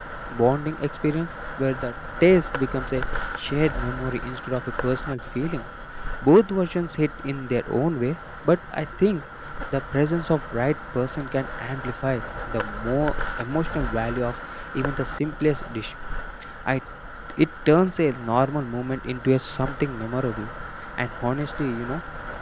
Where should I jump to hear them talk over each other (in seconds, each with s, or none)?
none